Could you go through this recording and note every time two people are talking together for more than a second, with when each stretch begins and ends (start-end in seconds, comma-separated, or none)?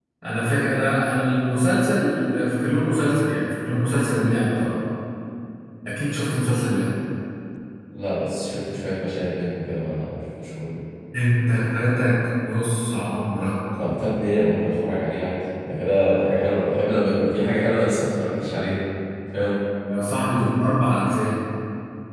none